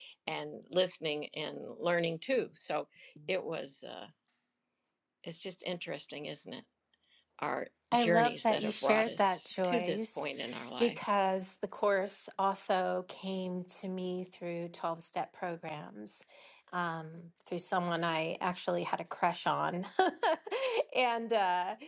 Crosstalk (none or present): present